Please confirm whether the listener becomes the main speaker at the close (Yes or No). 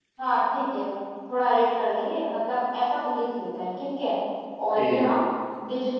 No